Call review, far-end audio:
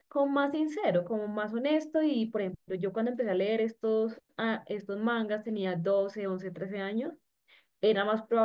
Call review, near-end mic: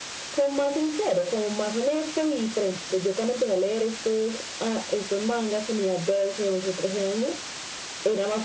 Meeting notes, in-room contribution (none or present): none